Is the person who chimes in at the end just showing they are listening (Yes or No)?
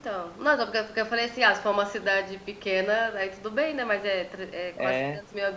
Yes